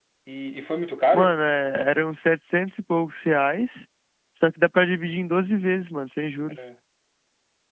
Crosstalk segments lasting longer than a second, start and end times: none

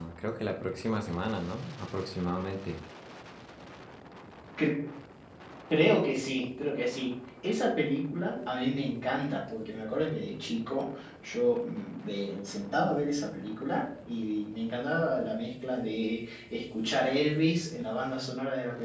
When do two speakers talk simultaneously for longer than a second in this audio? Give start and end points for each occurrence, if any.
none

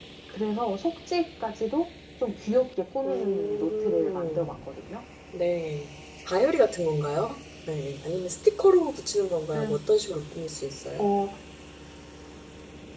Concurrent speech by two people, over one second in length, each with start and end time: 3.0-4.5

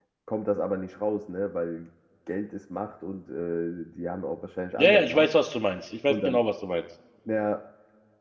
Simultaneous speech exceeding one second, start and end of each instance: none

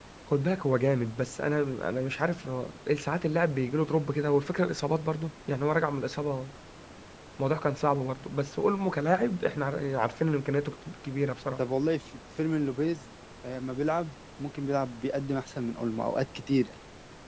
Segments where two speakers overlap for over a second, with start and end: none

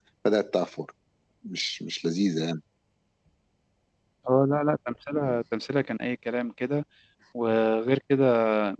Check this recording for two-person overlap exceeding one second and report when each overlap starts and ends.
none

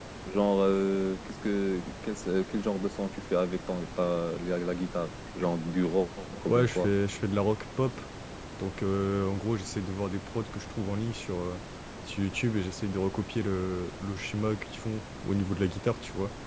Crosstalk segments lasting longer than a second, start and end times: none

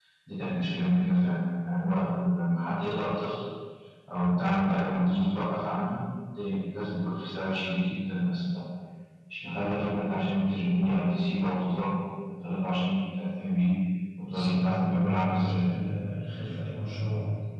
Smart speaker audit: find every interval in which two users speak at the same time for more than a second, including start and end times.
14.3-15.6

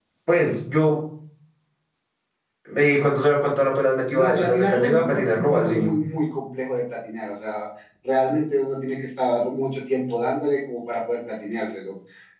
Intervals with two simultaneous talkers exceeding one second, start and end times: 4.1-5.9

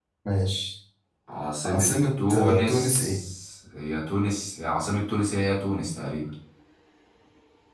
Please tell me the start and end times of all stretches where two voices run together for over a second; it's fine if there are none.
1.6-3.2

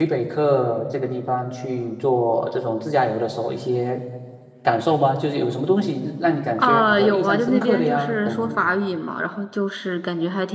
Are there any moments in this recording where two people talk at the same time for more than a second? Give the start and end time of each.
6.6-8.6

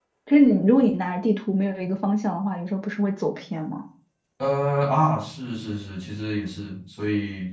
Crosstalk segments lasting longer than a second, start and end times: none

